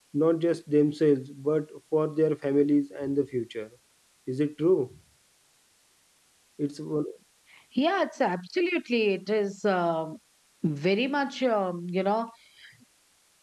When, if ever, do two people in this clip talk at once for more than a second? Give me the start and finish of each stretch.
none

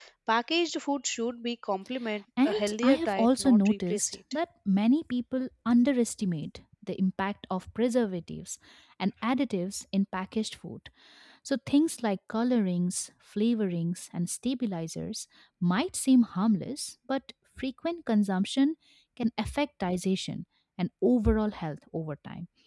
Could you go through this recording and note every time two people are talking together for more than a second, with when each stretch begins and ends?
2.4-4.4

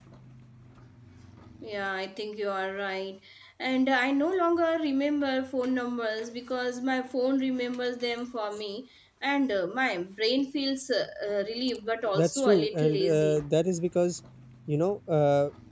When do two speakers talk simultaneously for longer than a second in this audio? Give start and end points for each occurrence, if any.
12.1-13.4

